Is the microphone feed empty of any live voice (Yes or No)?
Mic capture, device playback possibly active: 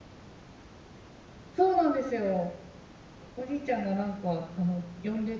No